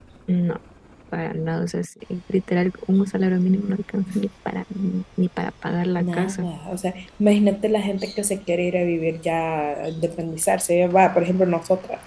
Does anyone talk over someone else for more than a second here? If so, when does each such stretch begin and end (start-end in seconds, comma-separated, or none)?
none